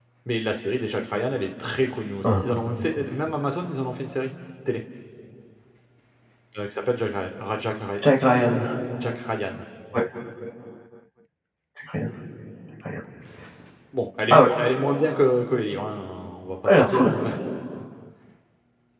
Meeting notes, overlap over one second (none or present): none